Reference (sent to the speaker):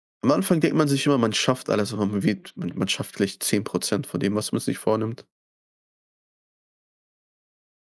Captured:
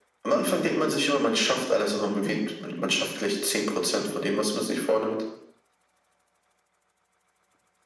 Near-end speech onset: none

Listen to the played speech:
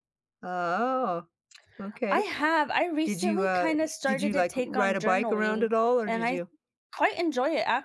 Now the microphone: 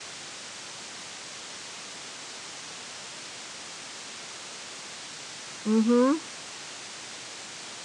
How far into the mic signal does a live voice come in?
5.6 s

